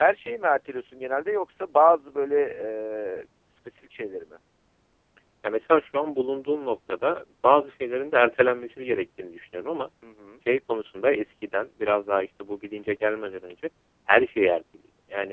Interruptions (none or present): none